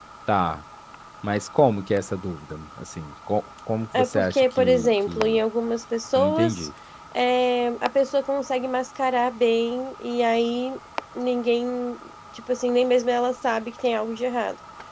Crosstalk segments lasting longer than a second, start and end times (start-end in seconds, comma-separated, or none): 3.9-5.4